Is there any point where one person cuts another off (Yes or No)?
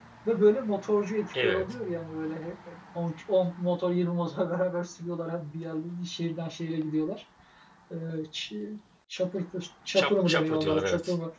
Yes